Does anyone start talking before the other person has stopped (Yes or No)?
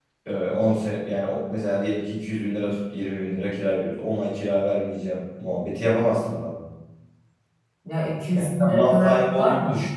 Yes